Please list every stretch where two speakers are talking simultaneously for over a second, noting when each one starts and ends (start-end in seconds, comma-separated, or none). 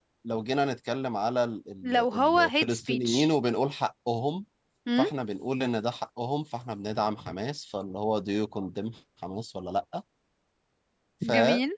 1.8-3.3